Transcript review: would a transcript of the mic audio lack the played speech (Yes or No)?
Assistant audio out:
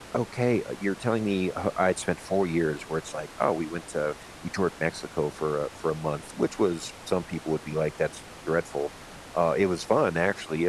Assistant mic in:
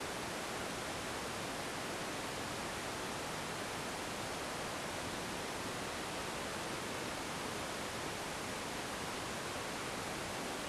Yes